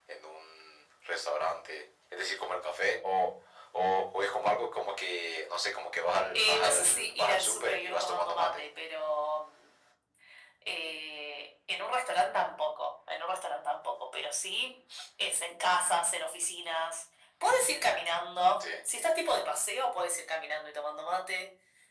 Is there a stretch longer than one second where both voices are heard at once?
Yes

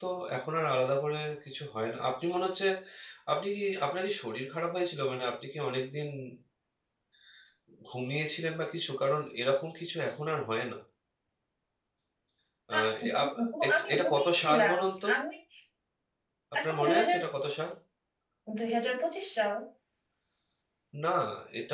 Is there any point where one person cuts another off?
Yes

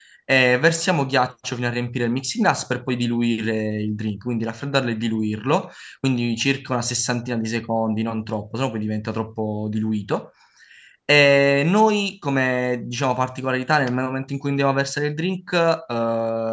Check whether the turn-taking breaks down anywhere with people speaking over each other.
No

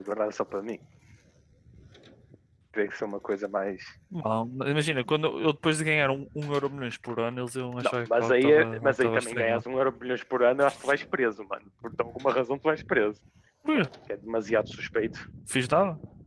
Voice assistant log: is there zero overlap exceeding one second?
No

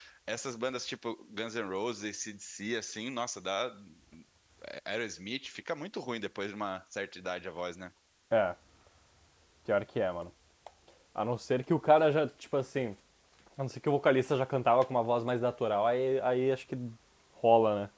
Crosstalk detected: No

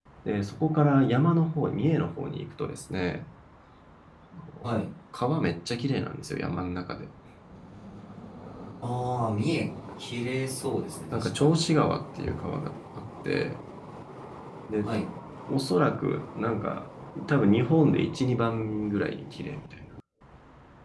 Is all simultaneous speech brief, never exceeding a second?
Yes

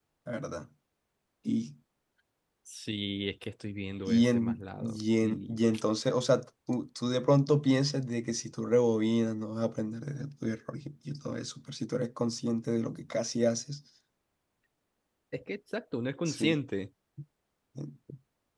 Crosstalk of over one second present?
Yes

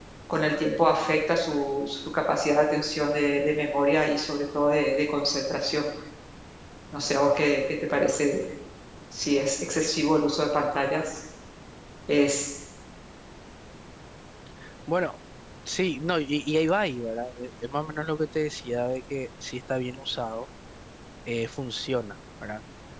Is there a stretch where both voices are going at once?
No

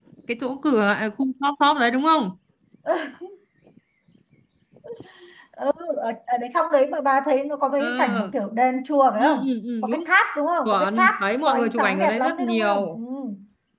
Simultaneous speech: Yes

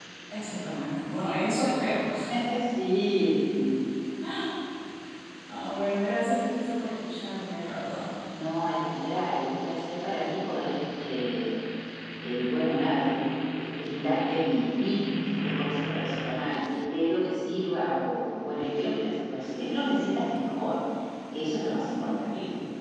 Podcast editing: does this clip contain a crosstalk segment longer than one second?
No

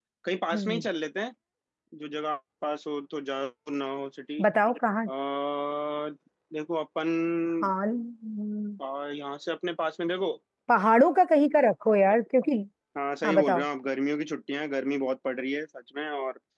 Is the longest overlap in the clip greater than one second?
No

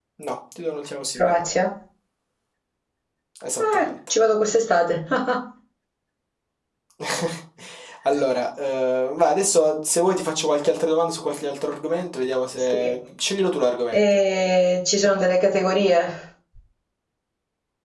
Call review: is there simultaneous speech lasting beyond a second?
No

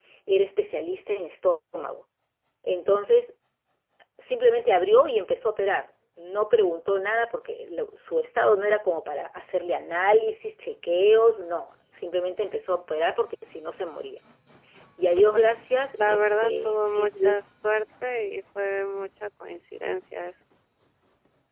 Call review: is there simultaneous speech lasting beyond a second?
Yes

